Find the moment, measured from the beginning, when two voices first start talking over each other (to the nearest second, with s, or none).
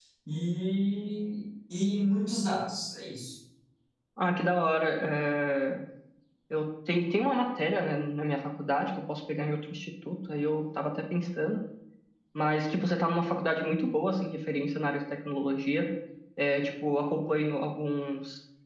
none